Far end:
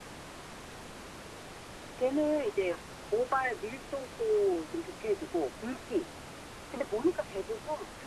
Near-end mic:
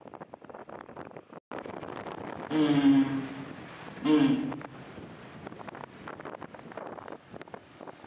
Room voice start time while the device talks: 2.5 s

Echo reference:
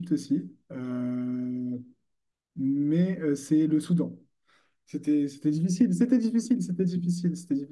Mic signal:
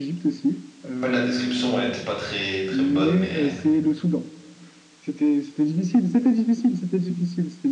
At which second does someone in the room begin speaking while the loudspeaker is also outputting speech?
1.0 s

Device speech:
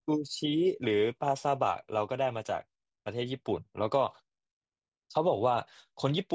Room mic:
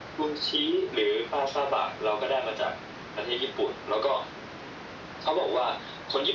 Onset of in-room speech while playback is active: none

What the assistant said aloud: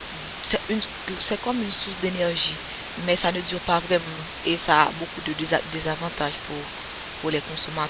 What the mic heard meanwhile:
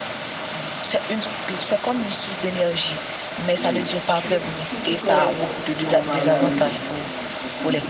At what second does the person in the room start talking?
3.5 s

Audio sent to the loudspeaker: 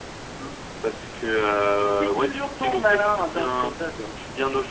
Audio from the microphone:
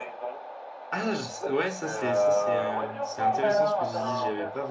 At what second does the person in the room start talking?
0.9 s

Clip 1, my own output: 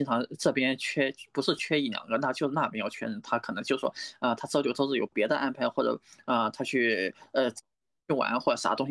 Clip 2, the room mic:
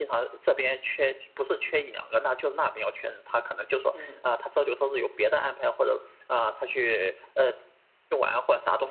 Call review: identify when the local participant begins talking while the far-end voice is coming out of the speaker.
3.9 s

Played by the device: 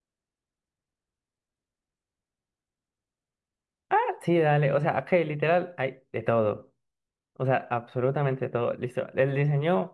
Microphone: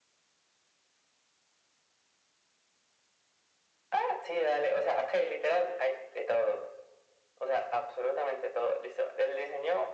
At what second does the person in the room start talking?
none

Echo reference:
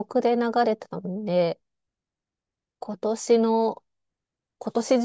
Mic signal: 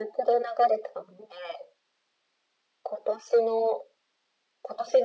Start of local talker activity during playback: none

